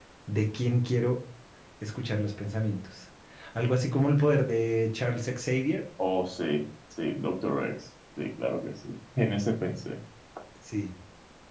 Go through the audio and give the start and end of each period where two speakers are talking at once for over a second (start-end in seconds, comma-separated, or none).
none